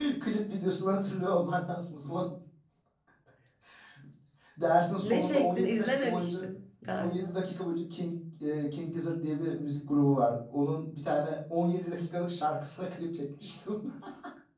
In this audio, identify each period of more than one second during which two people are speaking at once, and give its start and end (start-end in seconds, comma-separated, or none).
5.0-6.5